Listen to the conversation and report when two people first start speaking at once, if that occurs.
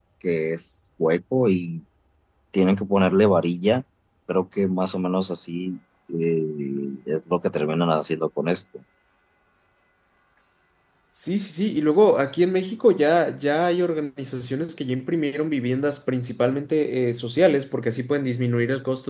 none

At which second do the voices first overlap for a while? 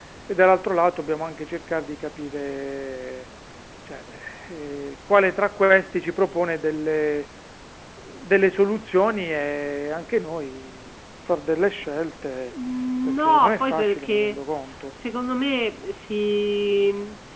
13 s

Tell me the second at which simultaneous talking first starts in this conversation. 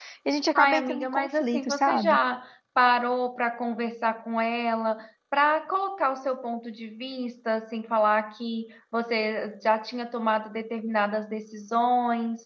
1 s

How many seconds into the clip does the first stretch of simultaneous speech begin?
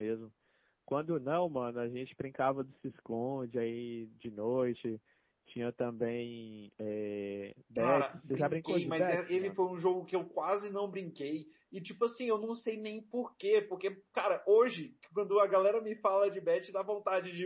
8 s

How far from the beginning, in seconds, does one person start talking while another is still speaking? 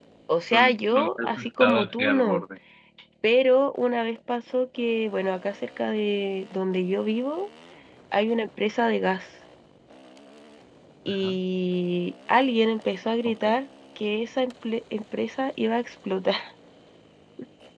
1 s

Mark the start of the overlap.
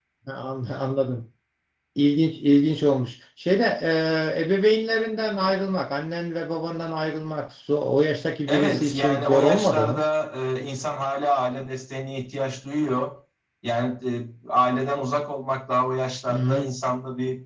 8 s

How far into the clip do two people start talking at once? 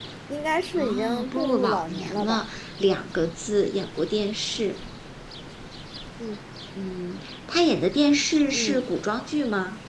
1 s

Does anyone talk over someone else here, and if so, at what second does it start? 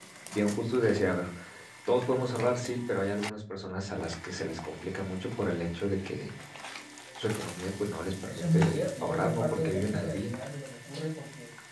8 s

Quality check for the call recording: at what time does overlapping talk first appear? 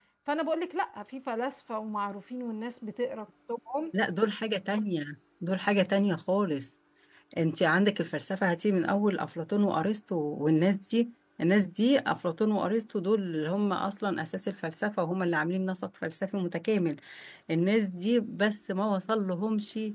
none

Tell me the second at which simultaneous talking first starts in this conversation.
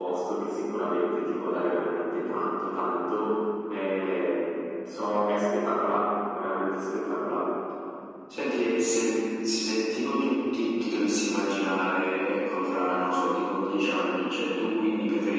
none

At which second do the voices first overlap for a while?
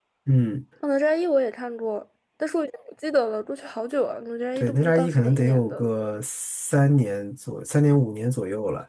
5 s

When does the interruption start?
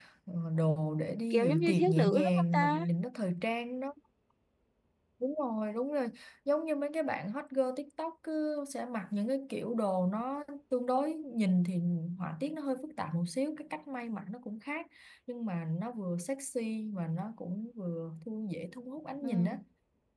1 s

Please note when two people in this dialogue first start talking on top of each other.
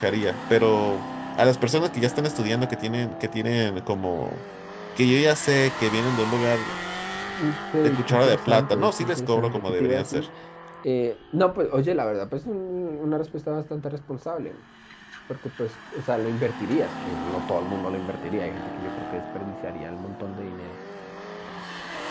8 s

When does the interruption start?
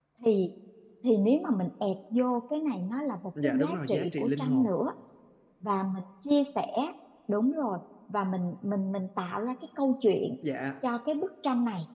3 s

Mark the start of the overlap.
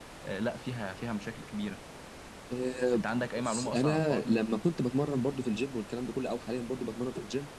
3 s

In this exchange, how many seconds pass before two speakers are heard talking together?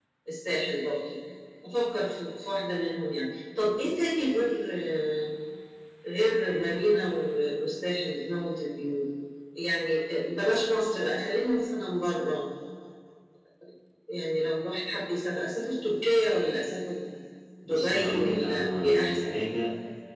18 s

